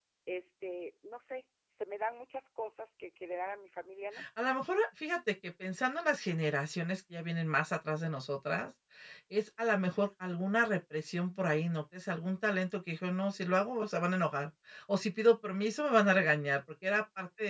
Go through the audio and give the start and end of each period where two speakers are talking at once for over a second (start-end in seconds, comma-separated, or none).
none